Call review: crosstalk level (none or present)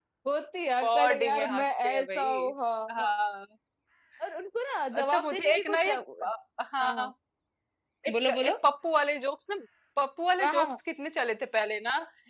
present